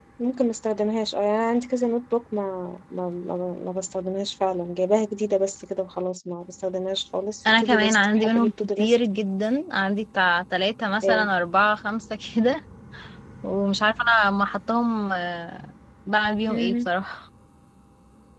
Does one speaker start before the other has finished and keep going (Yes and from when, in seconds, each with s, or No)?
Yes, from 7.4 s